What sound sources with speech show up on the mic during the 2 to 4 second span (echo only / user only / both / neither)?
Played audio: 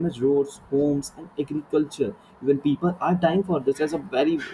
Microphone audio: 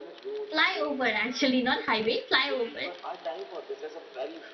both